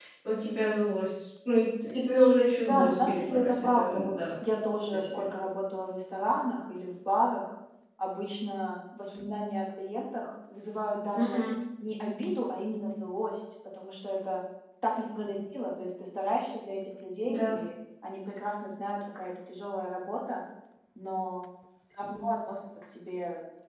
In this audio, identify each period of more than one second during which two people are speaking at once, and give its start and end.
2.6-4.3

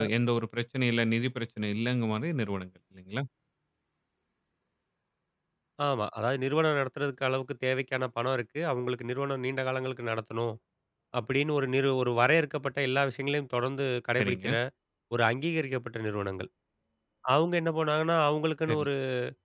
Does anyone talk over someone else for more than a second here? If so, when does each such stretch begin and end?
none

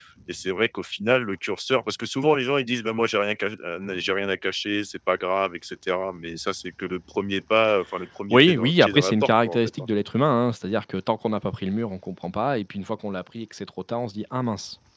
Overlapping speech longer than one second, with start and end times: 8.3-9.6

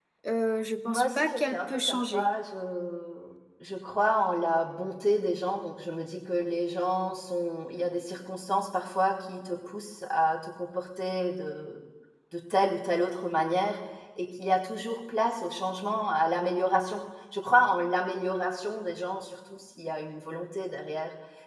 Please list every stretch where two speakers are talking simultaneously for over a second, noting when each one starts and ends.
0.9-2.3

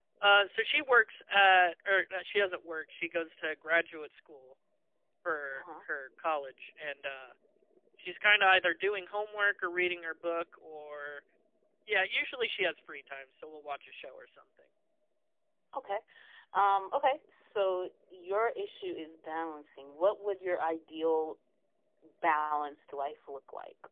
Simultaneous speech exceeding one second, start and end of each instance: none

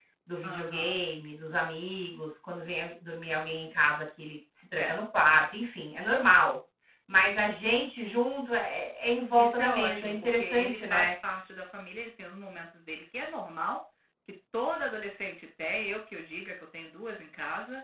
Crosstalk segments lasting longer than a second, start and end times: 9.4-11.1

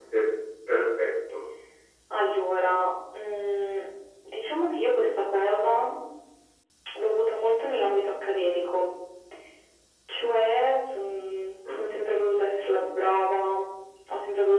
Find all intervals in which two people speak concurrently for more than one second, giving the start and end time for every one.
none

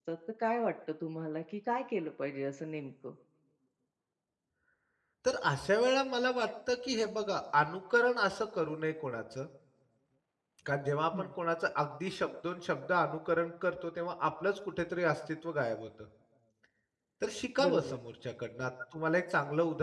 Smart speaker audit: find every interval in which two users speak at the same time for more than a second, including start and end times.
none

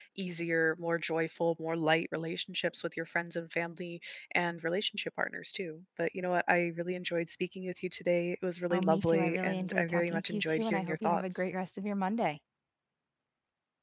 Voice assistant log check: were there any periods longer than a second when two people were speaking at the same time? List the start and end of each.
8.7-11.5

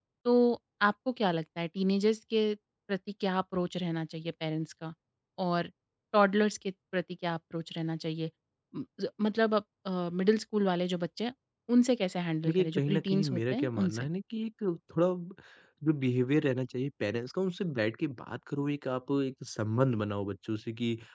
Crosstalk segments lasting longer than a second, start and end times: 12.5-14.1

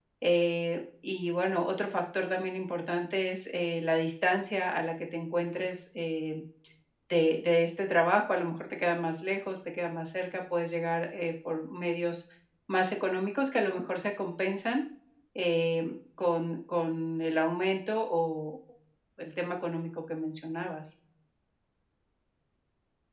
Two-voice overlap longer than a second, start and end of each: none

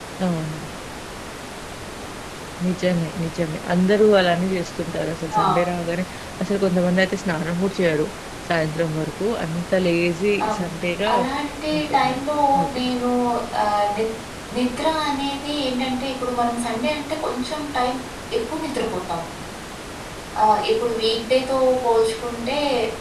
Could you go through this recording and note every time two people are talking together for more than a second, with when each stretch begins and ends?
none

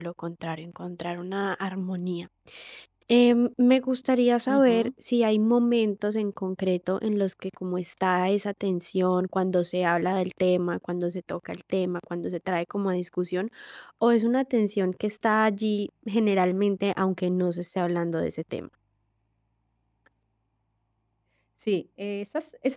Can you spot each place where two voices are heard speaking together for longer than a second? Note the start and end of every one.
none

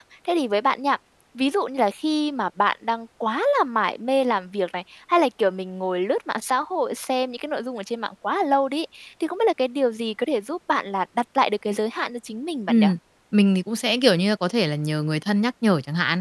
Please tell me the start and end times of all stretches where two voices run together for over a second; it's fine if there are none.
none

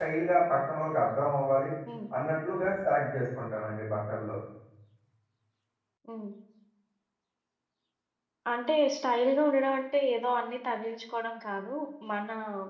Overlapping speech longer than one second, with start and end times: none

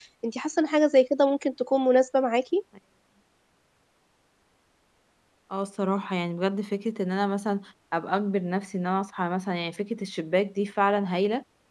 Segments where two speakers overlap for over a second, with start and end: none

